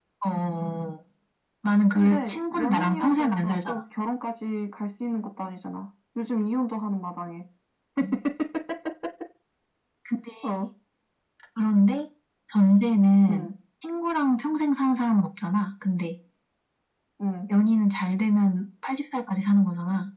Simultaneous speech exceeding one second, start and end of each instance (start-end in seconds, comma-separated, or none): 2.0-3.8